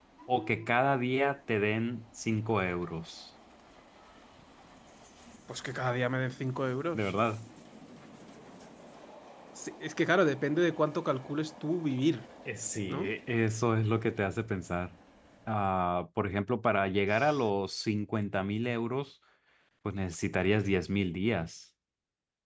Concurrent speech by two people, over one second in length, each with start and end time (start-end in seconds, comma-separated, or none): none